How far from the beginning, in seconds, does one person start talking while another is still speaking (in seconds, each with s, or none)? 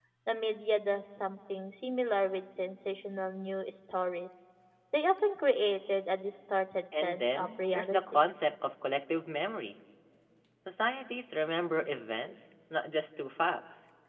6.9 s